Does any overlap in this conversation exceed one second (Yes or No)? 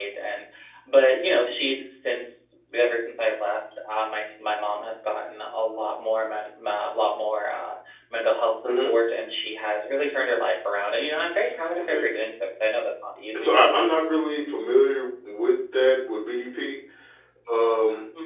No